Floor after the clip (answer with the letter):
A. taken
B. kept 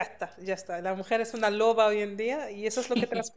B